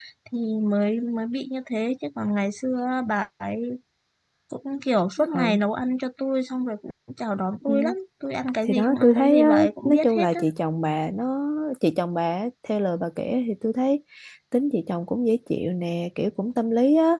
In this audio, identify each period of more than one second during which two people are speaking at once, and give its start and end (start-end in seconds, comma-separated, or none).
8.6-10.4